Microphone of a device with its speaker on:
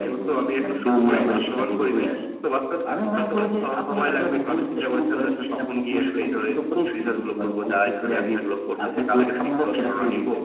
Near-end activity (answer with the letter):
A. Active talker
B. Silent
B